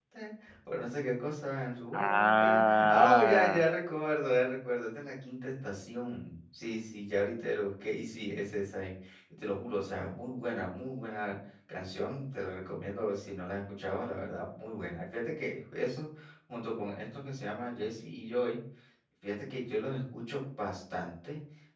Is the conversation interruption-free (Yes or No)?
No